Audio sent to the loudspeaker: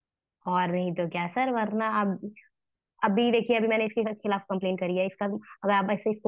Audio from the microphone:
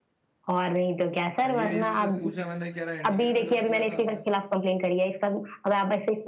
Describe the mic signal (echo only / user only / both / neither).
both